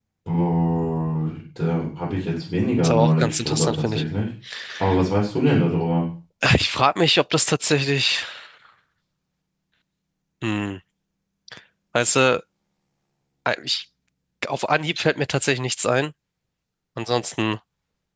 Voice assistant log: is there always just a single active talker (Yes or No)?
No